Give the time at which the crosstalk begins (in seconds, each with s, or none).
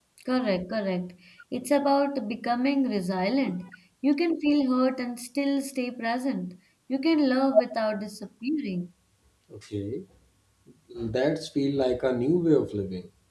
none